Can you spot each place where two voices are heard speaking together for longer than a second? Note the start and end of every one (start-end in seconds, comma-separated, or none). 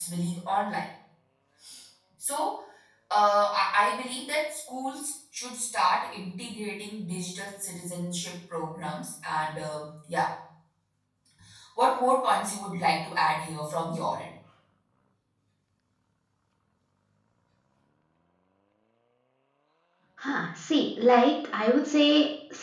none